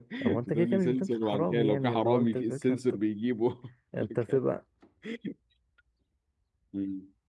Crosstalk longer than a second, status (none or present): present